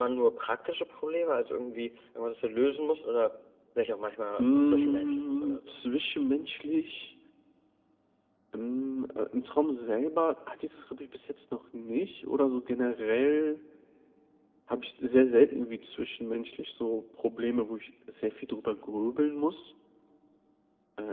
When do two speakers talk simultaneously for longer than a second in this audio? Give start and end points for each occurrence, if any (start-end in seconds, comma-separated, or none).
4.4-5.7